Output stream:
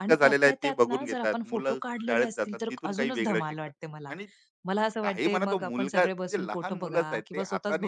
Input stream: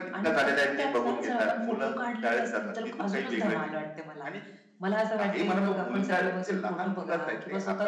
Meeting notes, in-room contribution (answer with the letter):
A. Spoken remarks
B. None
B